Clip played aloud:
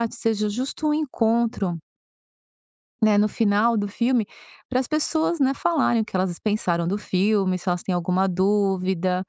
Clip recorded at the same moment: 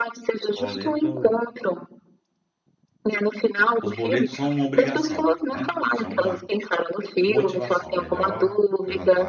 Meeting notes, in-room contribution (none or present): present